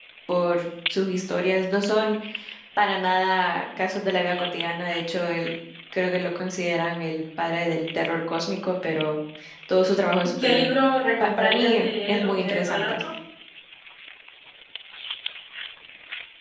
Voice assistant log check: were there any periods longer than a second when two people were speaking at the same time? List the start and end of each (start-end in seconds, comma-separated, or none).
11.2-13.0